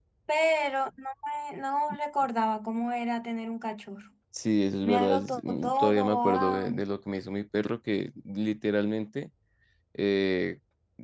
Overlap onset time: 5 s

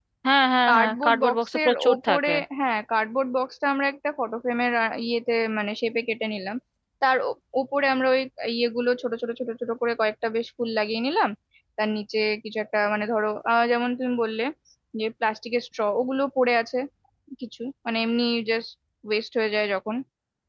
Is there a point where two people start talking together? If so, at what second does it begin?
1 s

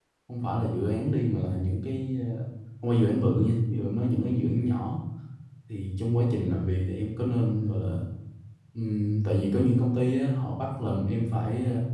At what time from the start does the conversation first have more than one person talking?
none

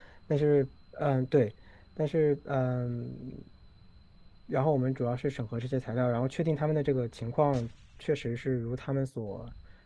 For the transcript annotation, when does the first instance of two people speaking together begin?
none

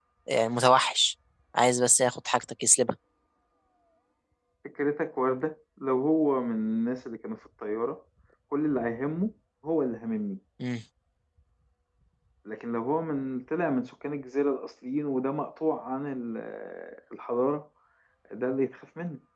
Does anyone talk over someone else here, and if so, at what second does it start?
none

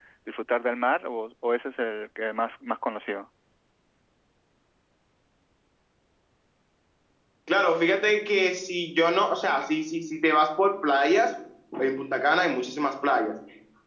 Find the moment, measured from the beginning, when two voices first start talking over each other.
none

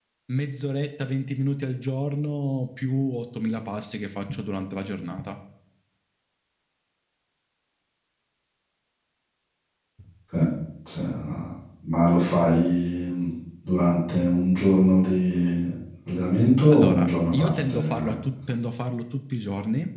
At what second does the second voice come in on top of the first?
17 s

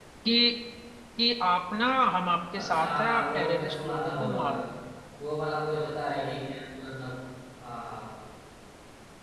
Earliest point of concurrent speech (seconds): 3 s

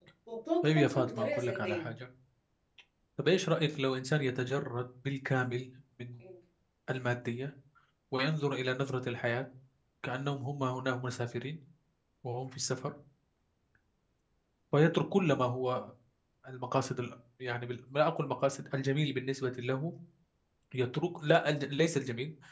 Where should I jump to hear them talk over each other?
1 s

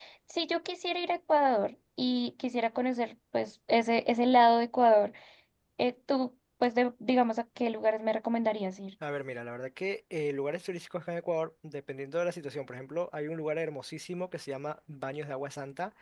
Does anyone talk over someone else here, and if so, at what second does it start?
none

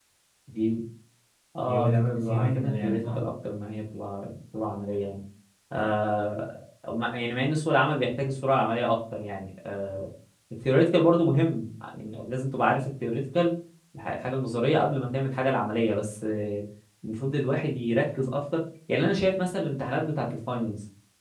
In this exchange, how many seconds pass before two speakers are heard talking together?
2 s

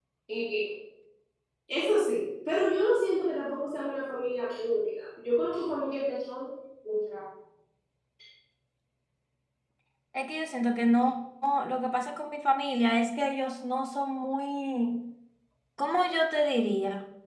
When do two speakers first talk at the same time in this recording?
none

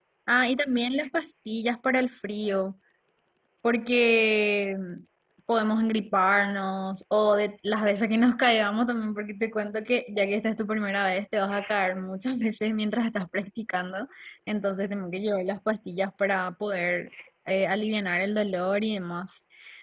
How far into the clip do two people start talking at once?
none

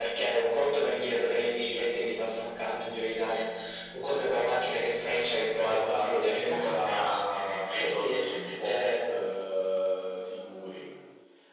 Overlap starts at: 6 s

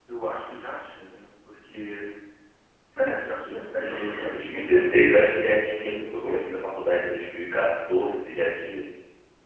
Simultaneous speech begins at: 4 s

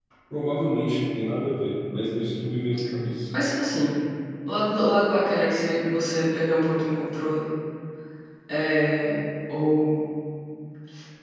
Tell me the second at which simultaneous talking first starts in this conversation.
none

